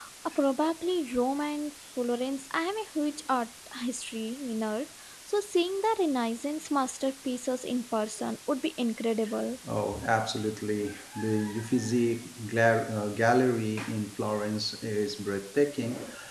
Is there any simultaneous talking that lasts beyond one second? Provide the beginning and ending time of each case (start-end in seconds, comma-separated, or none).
none